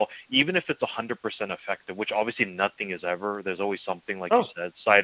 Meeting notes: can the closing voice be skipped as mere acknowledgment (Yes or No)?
Yes